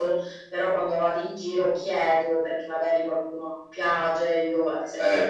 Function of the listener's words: listening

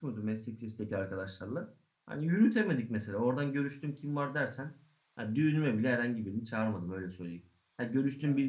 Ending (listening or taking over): listening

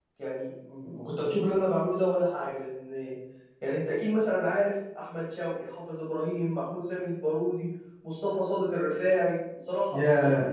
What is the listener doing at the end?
taking over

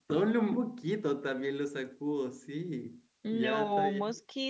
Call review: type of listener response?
taking over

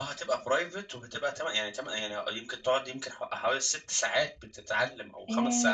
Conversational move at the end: taking over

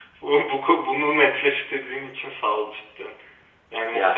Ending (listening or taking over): listening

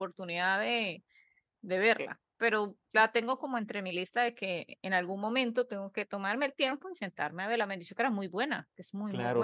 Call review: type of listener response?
taking over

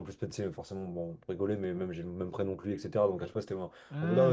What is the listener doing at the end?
listening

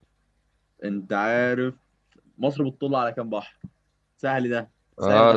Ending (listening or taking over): taking over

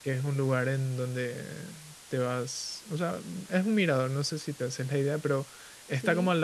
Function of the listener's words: listening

